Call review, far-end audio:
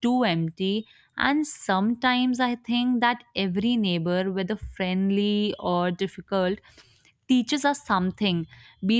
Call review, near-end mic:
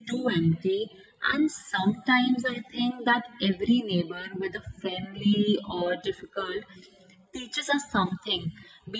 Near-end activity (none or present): none